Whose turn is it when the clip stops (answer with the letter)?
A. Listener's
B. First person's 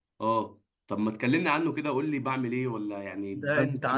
A